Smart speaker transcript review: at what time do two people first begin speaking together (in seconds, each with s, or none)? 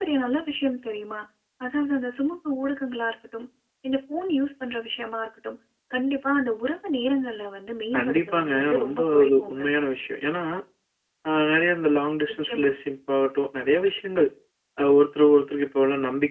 8.0 s